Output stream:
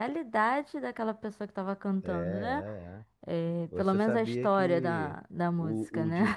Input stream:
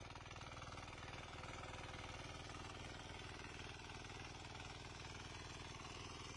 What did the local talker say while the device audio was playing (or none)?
none